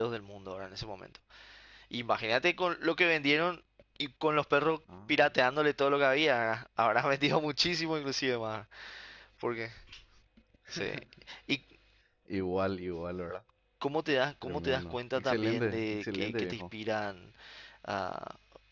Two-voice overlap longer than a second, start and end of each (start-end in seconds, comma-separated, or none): 14.4-16.6